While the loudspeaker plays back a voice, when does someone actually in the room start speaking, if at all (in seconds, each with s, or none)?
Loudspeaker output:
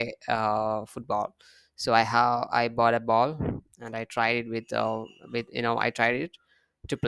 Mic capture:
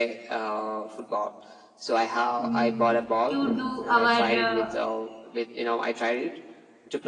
2.4 s